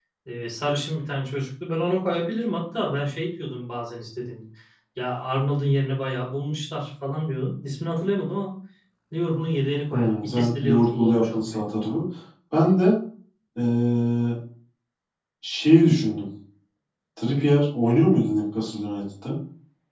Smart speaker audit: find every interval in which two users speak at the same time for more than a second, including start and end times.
9.9-11.7

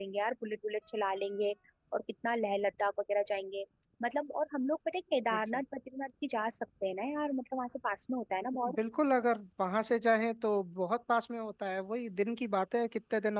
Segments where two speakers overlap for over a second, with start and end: none

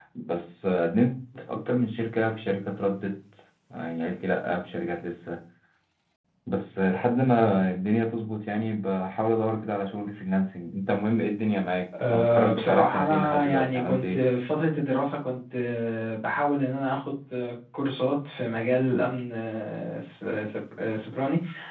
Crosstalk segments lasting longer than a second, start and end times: 12.1-14.2

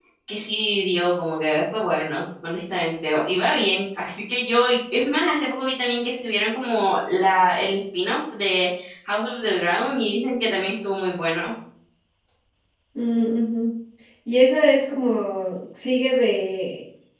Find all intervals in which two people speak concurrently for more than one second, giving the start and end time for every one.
none

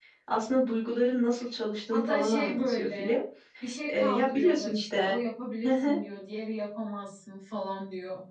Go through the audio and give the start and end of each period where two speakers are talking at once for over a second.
1.9-3.2, 3.9-5.2

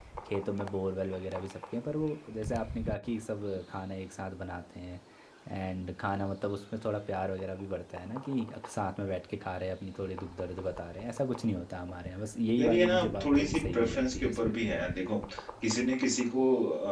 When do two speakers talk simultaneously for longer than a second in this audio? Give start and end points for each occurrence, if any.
12.6-14.5

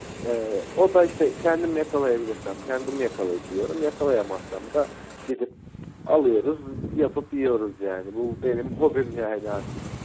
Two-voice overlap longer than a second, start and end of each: none

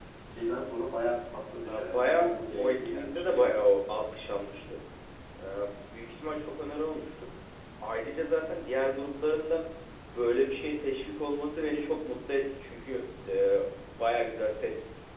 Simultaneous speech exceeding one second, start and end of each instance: 1.7-3.6

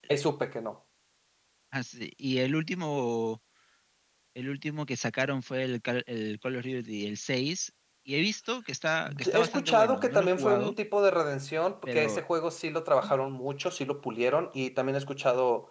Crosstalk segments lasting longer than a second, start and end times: 9.2-10.7

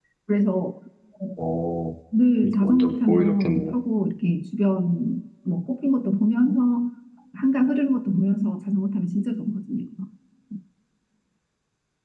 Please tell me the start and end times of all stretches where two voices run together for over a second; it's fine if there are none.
2.4-3.7

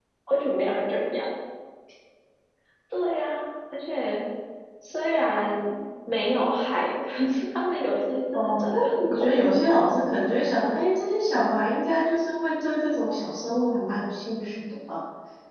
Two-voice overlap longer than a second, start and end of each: 8.3-9.7

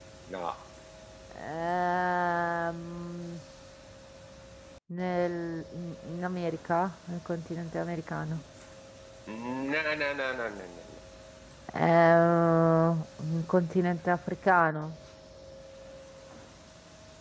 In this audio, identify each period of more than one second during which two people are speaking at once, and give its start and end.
none

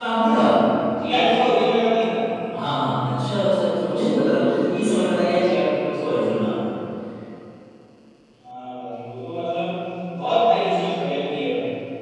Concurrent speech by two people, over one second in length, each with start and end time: none

